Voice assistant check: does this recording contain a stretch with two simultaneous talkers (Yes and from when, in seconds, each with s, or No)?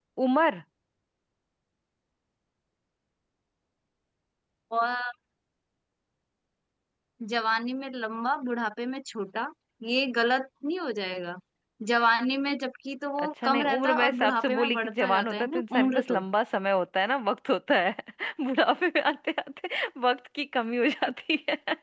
Yes, from 13.2 s